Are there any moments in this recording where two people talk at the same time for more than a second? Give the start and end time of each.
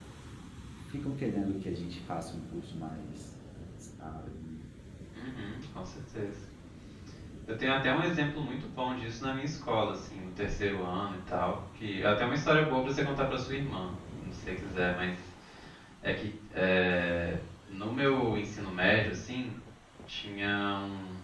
none

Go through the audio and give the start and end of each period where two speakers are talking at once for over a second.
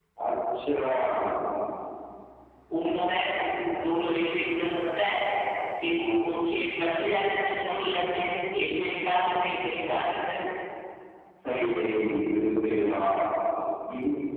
none

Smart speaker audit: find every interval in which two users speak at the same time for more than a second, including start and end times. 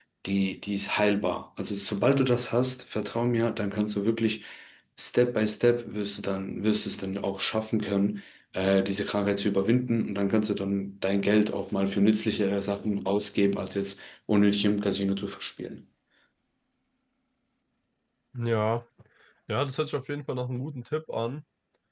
none

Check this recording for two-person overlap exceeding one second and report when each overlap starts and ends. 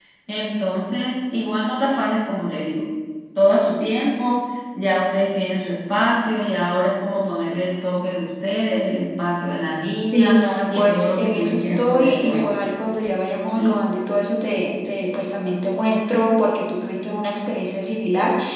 10.0-12.6

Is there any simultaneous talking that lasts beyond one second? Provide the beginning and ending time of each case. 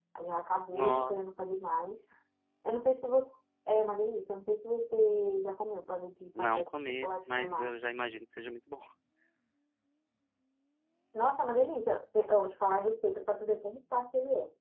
6.4-7.8

